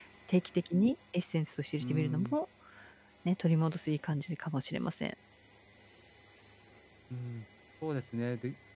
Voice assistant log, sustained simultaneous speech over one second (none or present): none